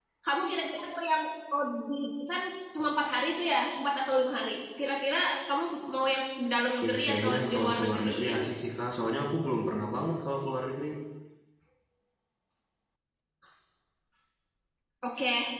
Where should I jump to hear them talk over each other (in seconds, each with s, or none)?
6.8 s